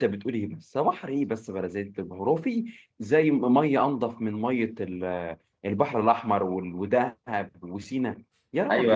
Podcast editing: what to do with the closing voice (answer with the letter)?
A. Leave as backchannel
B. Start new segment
B